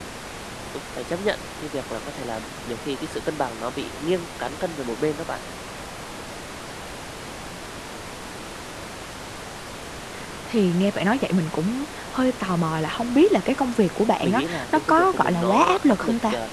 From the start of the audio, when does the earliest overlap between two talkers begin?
14.2 s

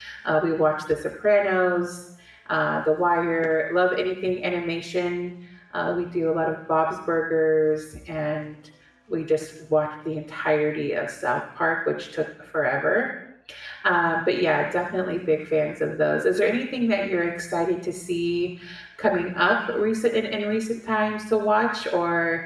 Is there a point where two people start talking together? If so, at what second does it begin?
none

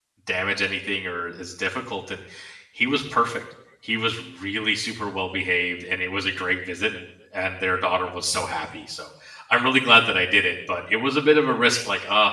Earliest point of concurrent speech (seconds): none

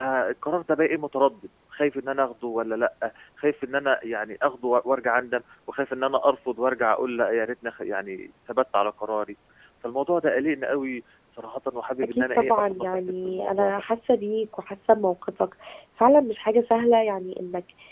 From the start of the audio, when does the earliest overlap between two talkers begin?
12.0 s

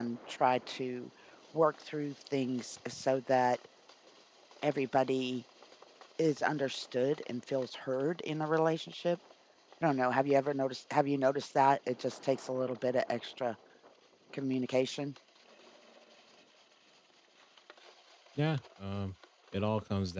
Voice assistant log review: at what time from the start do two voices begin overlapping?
none

